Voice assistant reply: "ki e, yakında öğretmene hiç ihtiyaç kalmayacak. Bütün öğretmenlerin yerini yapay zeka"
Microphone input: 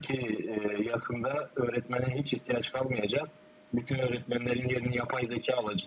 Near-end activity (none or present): none